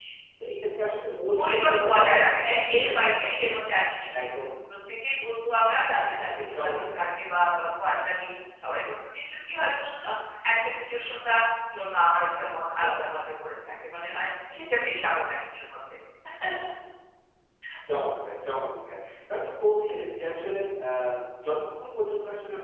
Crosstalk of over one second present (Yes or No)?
Yes